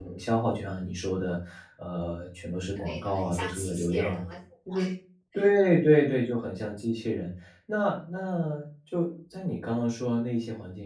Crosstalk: present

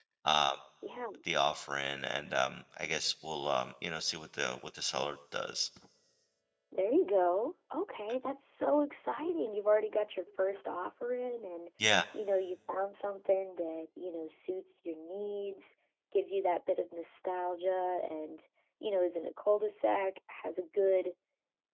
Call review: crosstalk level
none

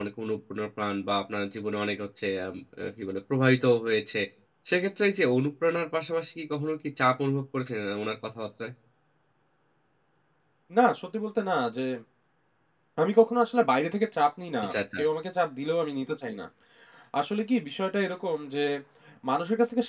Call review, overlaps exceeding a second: none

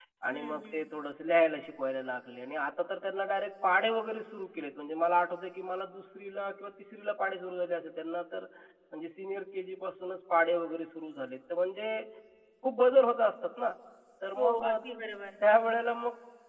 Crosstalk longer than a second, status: none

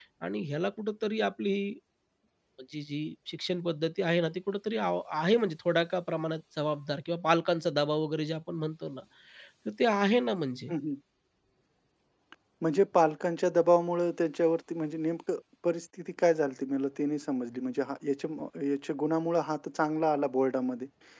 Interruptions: none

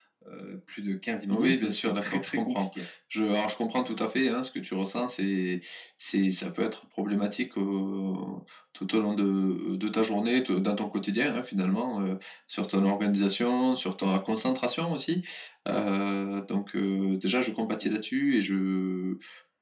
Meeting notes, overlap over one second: present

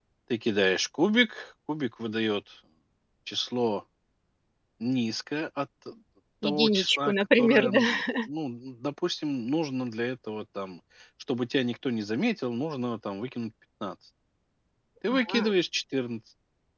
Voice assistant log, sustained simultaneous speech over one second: present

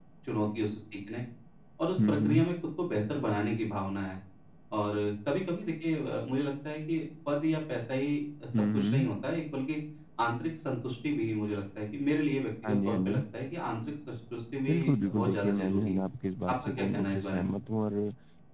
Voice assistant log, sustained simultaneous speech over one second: present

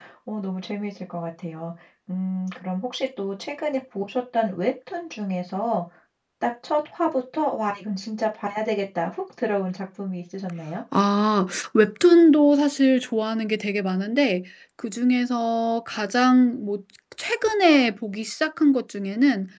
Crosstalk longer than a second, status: none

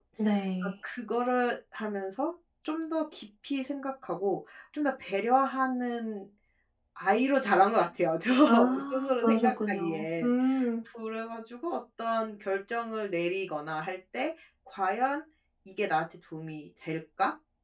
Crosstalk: present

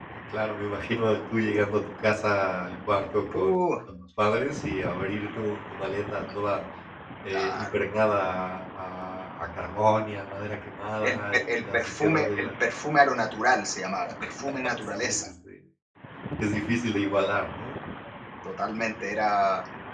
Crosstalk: present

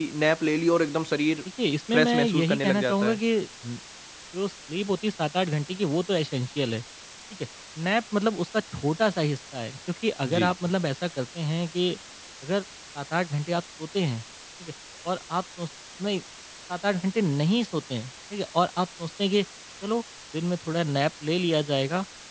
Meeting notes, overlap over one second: present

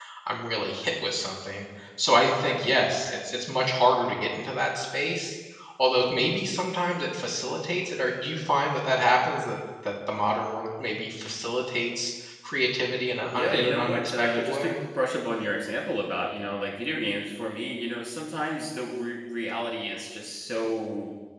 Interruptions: present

